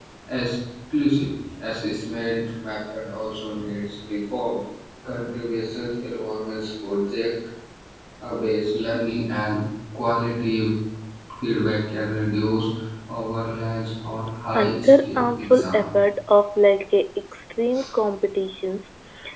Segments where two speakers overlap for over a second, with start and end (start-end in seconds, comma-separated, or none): 14.5-15.9